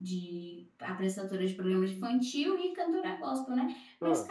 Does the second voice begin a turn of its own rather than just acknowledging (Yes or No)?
No